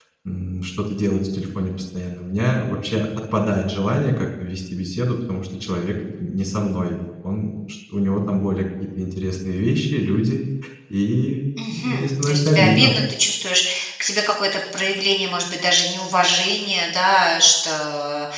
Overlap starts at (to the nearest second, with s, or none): 12 s